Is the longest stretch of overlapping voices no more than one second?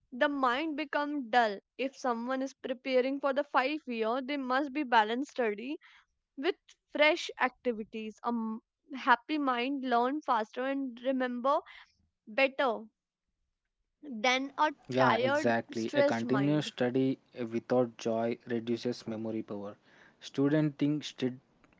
No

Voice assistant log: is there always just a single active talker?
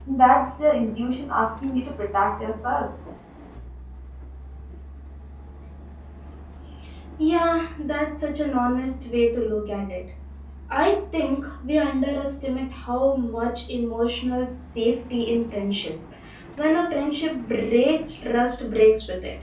Yes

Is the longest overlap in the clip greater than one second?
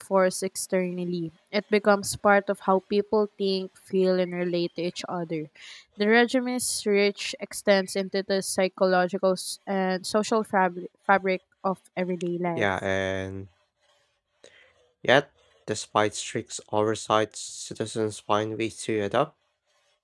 No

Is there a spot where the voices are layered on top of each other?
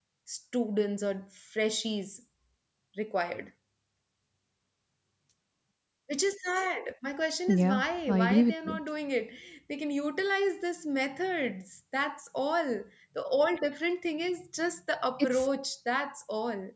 Yes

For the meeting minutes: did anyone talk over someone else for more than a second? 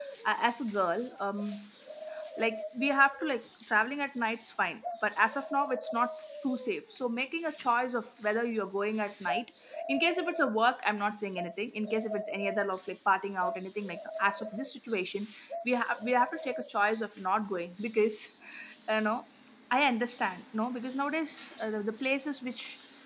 No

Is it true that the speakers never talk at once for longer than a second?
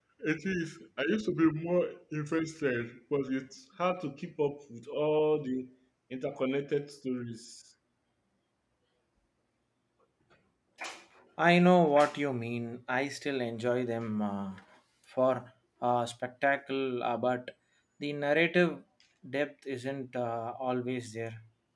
Yes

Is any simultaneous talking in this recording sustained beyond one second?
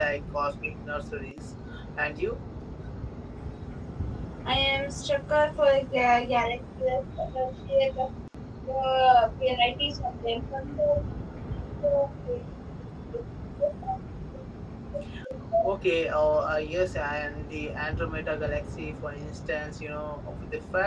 No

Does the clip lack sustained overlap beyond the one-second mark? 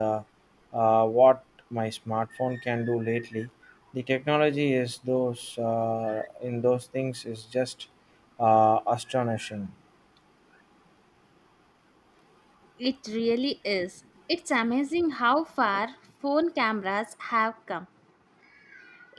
Yes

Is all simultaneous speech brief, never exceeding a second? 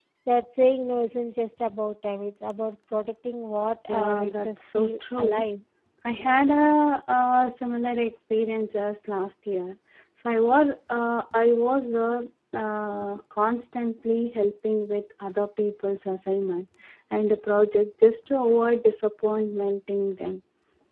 No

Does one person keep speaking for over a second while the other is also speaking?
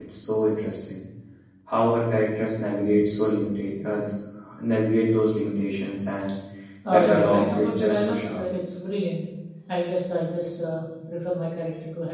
Yes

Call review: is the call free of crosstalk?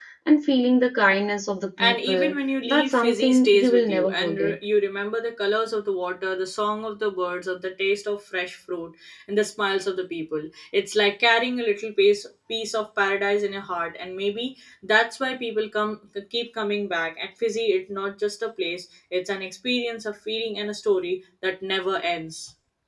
No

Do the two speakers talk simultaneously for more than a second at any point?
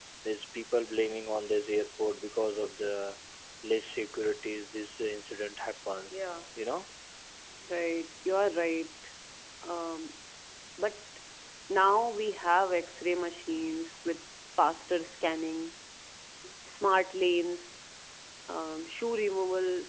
No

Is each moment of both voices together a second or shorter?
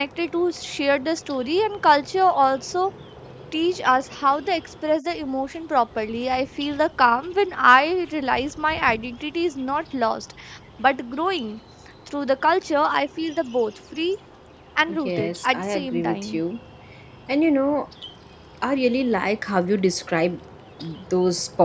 No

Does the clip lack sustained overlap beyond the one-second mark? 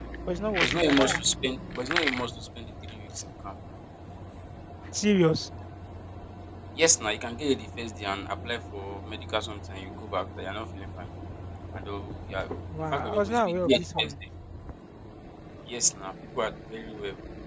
No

